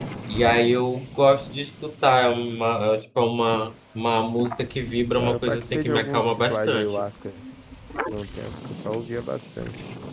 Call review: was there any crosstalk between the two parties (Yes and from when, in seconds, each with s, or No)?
Yes, from 5.1 s